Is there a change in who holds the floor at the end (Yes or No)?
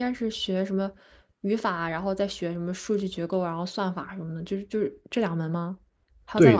Yes